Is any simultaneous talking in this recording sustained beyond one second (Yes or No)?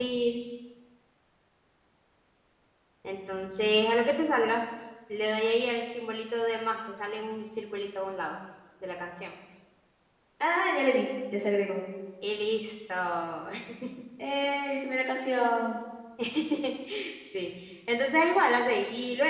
No